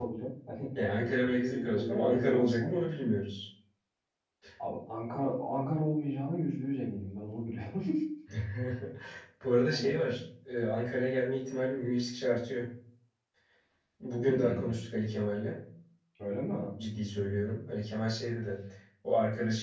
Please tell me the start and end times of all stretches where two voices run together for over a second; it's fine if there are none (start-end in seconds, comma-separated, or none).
1.2-2.7